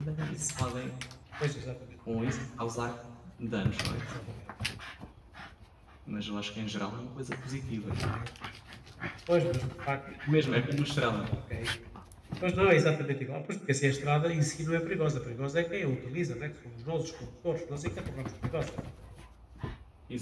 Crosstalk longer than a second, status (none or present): none